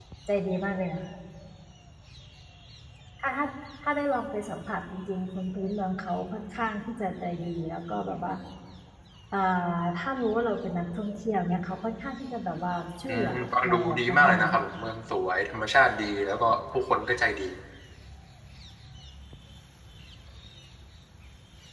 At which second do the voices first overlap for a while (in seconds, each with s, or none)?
13.1 s